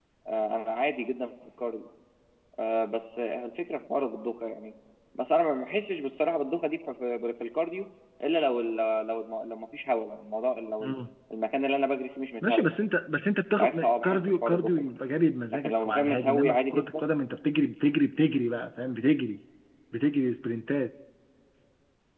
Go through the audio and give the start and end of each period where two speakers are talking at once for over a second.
13.6-14.9, 15.5-17.0

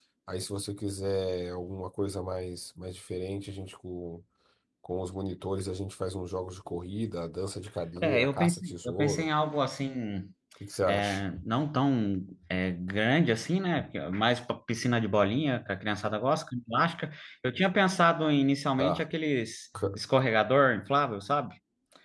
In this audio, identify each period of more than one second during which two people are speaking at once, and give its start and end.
8.0-9.3

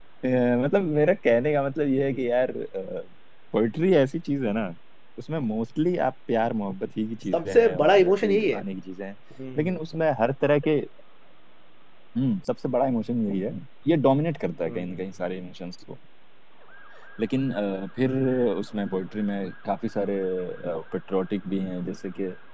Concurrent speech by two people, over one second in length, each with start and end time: 7.3-8.6

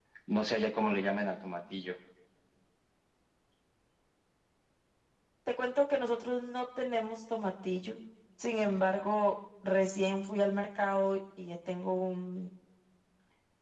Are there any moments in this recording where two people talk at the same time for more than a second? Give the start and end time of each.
none

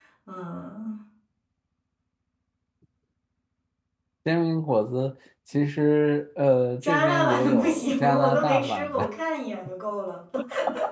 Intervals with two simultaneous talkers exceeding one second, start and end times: 6.8-9.1

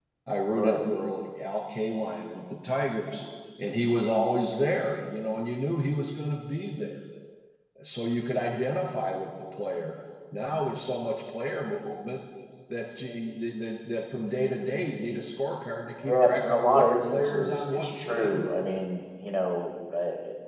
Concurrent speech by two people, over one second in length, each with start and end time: 16.1-18.4

